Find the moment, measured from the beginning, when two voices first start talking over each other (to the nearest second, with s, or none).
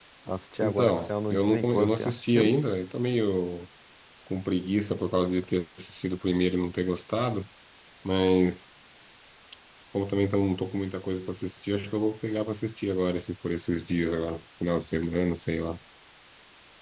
1 s